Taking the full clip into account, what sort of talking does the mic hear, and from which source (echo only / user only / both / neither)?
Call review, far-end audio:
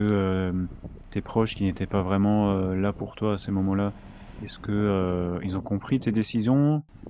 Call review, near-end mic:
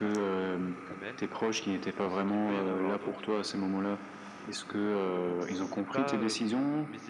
both